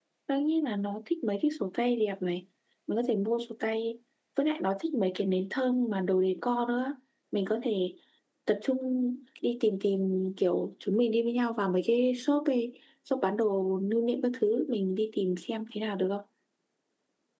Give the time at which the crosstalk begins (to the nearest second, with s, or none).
none